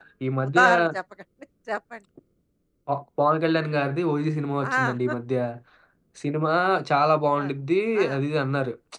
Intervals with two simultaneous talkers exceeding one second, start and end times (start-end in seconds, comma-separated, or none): none